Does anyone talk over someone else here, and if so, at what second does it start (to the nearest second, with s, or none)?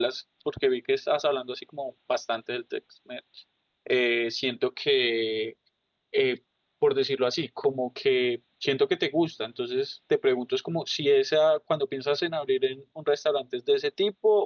none